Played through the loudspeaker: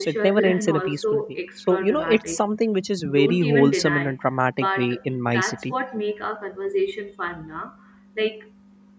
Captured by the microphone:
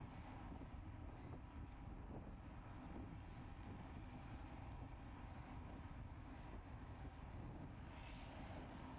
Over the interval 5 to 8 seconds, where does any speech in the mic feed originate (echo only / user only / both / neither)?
neither